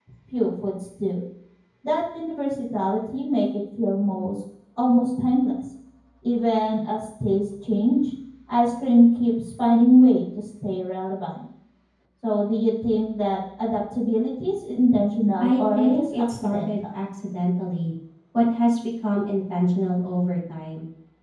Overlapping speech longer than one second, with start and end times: 15.4-16.7

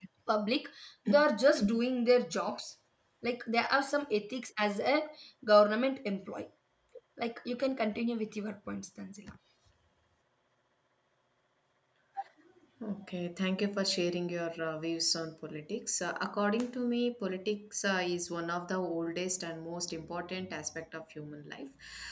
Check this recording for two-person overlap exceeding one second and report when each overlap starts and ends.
none

